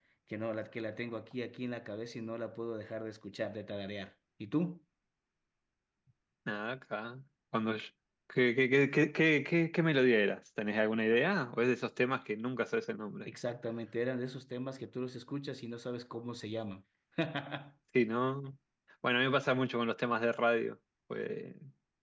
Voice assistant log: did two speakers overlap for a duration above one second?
No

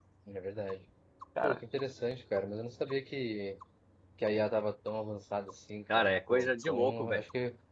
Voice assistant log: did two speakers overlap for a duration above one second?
Yes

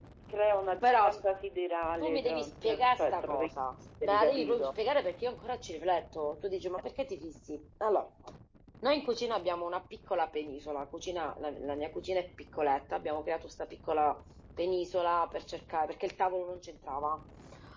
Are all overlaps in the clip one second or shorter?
No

